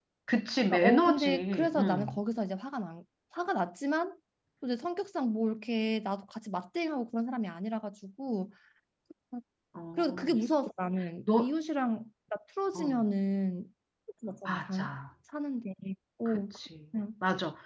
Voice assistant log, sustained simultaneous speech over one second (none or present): present